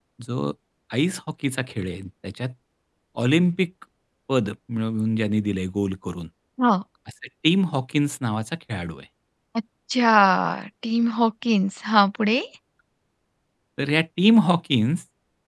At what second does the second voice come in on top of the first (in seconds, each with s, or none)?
none